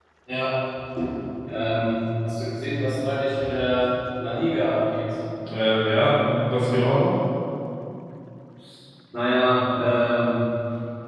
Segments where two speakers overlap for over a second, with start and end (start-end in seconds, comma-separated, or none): none